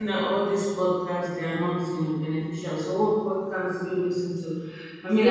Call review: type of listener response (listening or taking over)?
listening